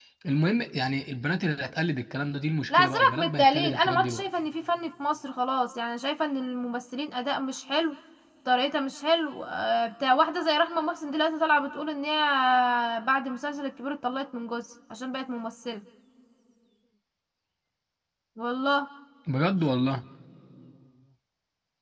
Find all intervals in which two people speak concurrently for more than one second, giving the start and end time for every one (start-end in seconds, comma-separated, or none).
2.7-4.3